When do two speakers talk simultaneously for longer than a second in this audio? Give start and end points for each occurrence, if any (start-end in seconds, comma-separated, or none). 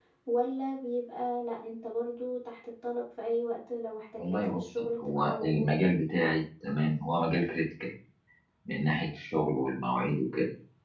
4.2-5.7